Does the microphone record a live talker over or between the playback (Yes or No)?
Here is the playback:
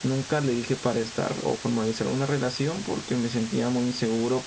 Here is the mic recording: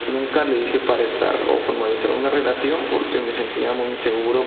No